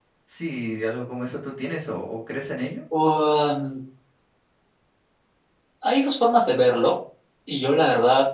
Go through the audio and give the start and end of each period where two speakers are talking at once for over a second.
none

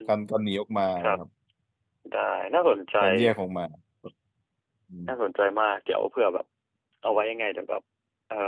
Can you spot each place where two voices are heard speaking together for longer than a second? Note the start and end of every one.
none

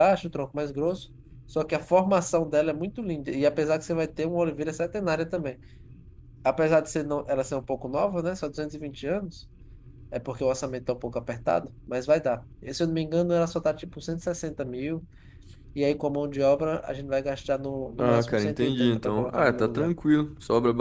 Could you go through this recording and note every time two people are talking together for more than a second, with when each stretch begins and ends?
18.0-19.9

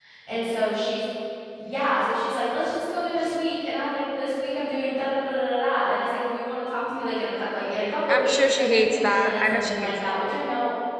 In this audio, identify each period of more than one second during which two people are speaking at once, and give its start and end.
8.1-10.2

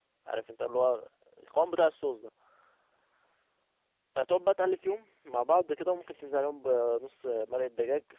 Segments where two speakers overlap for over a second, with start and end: none

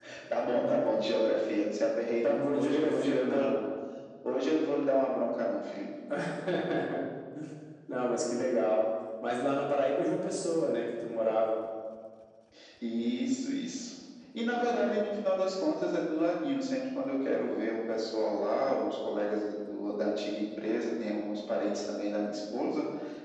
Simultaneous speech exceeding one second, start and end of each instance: 2.2-3.5

